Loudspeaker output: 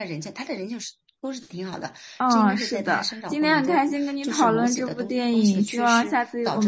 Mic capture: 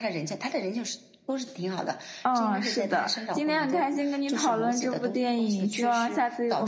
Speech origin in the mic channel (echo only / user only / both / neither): echo only